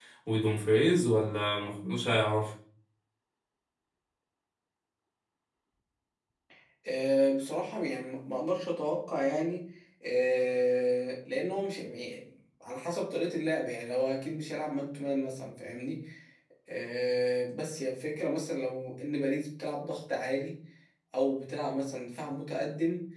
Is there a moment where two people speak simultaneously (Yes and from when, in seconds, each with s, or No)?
No